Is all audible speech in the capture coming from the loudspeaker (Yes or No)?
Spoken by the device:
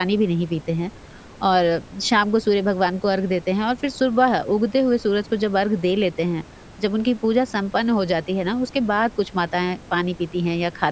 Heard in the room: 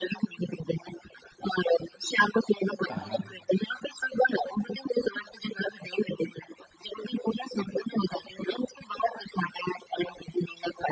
No